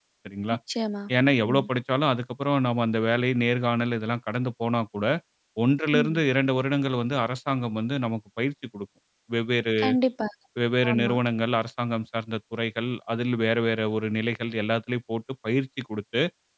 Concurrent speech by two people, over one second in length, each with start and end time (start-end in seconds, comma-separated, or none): none